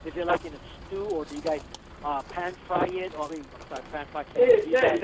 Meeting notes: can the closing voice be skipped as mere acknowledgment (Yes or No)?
No